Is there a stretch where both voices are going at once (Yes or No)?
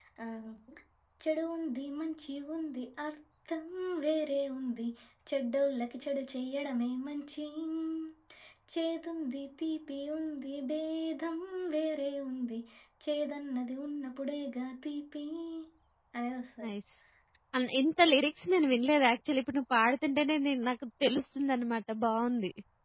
No